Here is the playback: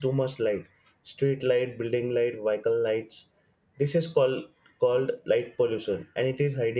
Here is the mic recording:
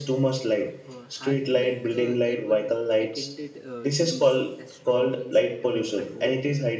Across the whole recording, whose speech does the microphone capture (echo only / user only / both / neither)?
both